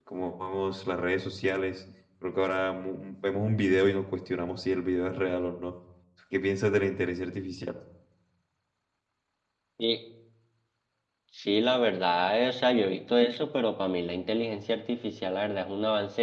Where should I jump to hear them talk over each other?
none

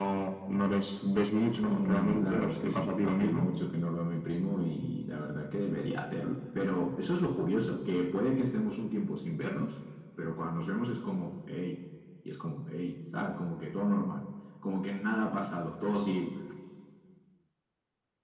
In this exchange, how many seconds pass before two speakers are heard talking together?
1.5 s

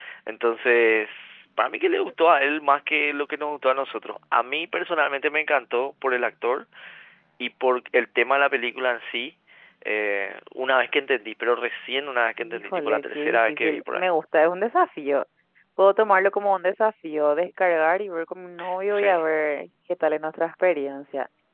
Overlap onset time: 12.4 s

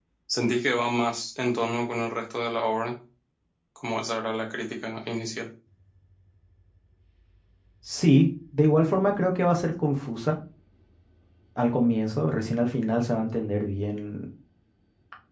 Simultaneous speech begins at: none

